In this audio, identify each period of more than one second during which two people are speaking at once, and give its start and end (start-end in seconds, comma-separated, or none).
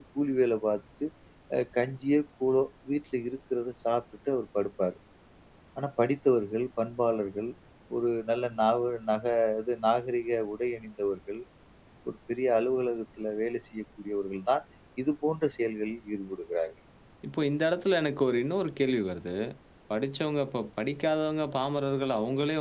none